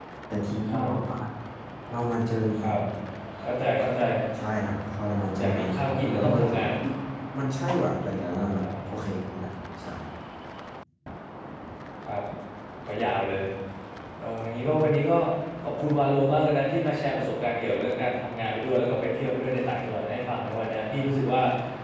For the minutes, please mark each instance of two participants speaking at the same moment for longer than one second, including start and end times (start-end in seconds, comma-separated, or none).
5.4-6.7